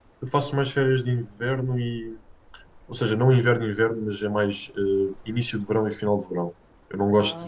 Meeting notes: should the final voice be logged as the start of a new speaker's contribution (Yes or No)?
No